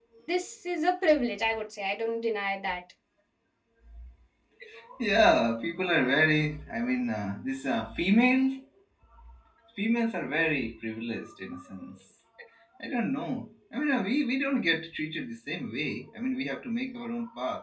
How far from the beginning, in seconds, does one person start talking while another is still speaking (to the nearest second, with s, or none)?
none